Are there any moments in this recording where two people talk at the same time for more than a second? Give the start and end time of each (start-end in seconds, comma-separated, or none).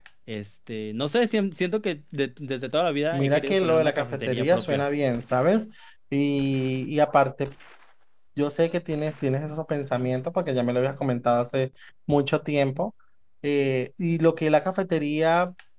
3.1-4.8